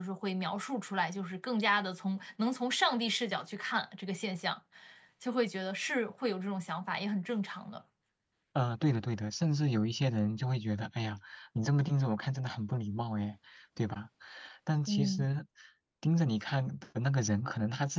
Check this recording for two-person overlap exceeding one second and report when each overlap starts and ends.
none

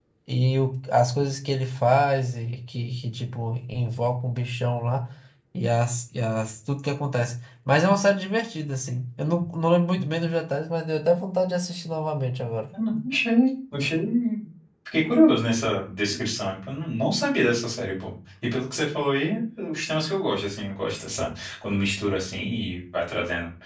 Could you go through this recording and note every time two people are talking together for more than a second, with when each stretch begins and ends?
none

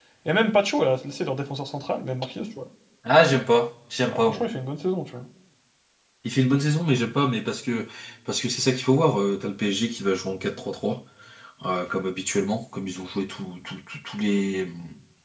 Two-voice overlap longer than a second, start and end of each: none

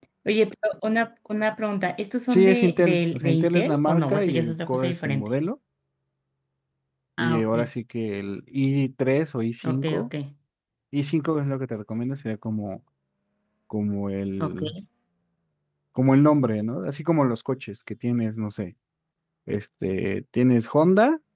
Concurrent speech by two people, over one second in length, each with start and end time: 2.3-5.3

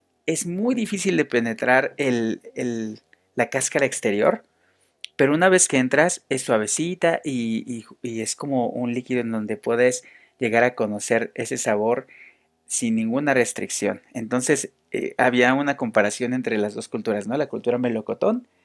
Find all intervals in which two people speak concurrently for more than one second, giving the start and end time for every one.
none

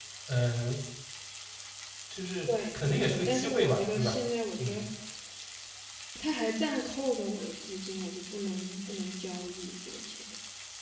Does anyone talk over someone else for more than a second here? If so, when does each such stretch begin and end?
2.4-4.2

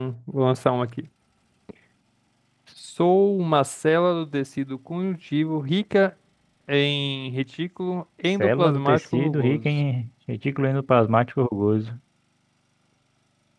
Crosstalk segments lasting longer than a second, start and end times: 8.4-9.7

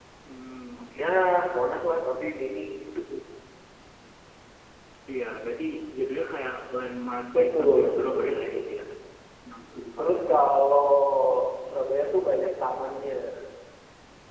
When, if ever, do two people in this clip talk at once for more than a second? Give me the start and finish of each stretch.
7.4-8.7

